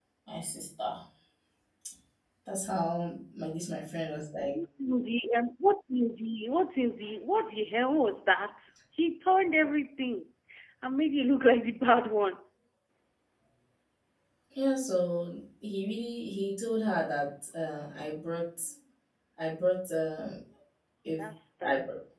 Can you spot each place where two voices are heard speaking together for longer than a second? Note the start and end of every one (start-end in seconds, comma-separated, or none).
none